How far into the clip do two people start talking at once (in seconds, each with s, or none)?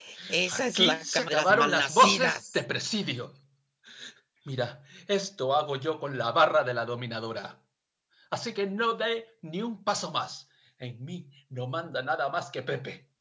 0.5 s